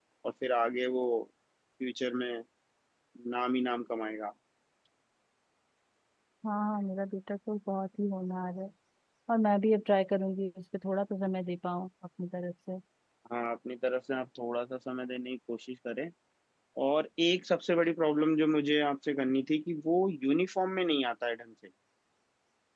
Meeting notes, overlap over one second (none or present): none